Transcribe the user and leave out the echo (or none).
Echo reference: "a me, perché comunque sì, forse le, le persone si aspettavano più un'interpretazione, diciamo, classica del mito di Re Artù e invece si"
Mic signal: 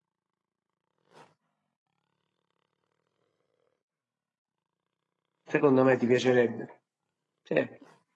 secondo me ti piacerebbe. Sì,